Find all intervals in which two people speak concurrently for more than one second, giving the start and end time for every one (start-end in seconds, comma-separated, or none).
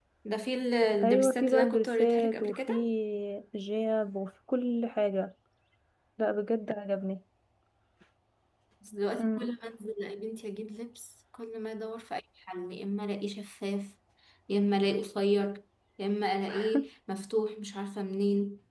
1.0-2.7